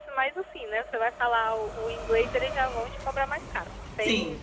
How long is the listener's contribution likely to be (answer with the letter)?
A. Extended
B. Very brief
A